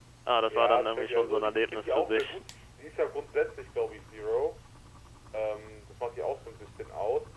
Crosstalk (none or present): present